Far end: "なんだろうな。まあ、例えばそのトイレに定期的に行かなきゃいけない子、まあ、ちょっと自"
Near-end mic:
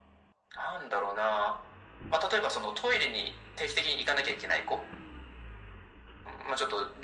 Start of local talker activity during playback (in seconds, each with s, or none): none